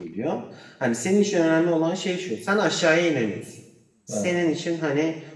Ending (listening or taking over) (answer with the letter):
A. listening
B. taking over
A